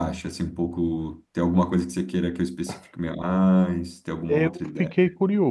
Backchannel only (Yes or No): No